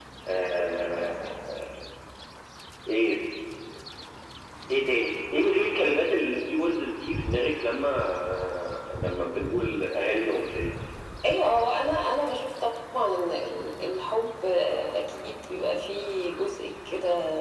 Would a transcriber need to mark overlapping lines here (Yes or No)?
No